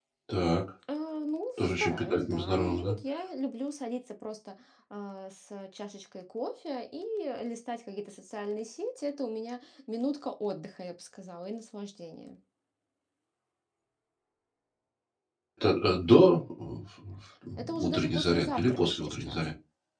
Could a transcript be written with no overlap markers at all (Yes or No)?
No